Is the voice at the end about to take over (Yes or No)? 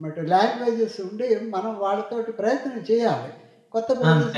No